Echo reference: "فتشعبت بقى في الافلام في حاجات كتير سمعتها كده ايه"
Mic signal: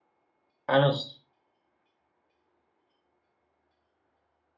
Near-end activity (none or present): present